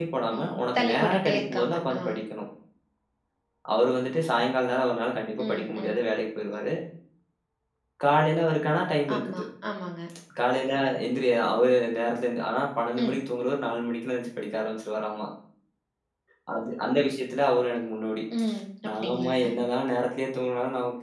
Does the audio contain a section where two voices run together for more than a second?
Yes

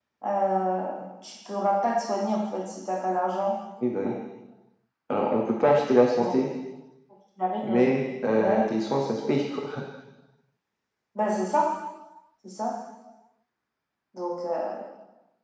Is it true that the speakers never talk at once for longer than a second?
Yes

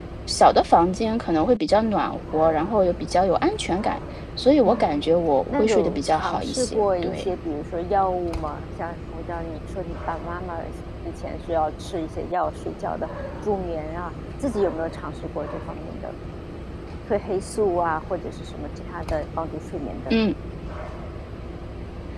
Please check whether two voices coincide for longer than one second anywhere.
Yes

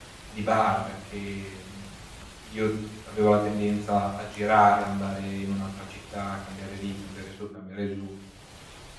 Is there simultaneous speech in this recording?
No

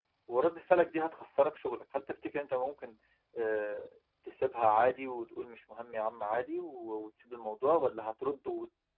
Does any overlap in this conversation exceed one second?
No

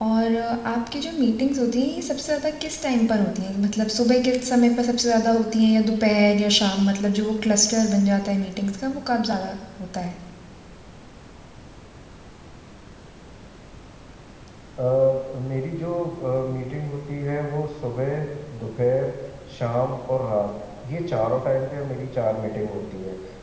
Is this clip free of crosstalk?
Yes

